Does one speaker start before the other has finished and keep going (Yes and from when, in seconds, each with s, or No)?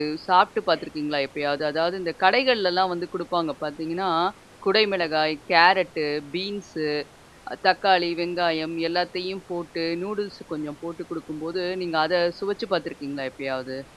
No